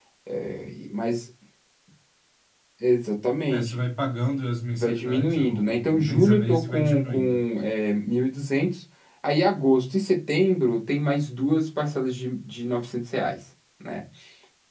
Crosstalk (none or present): present